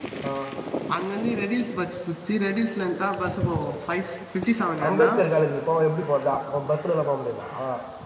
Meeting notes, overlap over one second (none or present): none